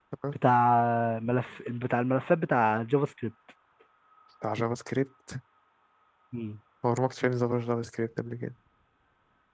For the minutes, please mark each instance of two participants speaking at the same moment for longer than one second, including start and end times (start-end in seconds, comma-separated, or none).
none